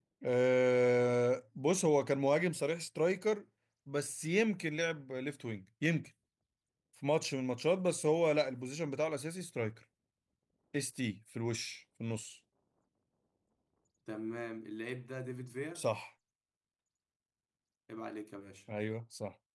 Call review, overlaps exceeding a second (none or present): none